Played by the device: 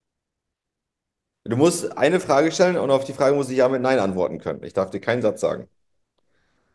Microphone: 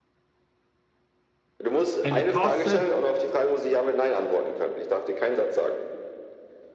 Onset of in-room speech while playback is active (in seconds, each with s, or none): 2.0 s